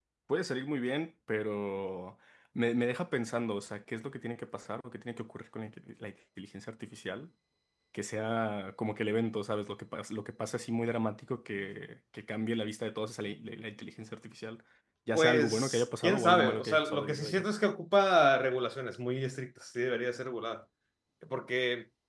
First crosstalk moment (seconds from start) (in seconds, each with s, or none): 15.1 s